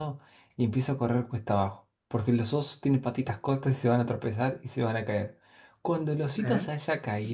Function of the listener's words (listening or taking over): listening